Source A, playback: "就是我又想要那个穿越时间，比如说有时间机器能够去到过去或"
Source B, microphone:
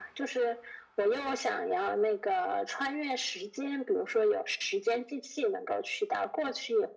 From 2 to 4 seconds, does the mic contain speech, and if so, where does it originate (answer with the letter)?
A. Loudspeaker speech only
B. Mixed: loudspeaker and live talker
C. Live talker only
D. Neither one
A